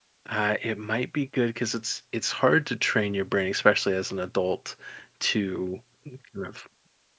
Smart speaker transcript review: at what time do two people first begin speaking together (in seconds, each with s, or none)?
none